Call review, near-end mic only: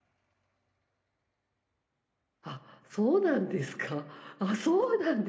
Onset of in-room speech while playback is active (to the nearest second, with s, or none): 2 s